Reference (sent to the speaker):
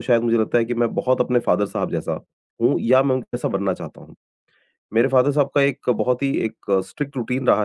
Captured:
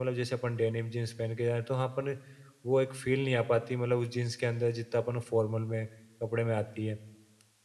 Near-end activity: present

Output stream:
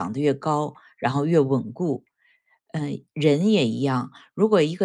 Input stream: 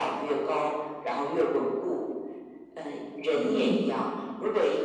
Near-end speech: present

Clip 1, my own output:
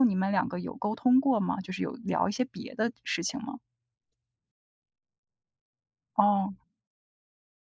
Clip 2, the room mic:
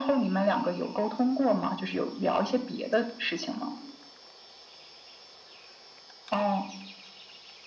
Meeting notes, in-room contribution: none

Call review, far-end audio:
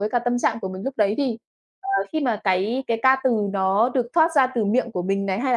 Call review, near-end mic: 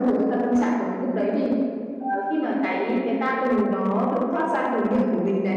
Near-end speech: none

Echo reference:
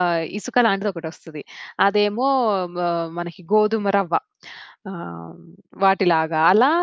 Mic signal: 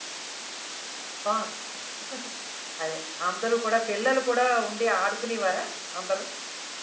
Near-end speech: present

